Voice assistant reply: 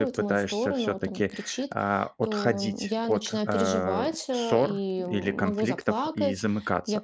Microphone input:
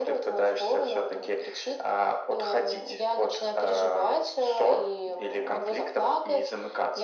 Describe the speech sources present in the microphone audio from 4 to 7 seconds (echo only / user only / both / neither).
echo only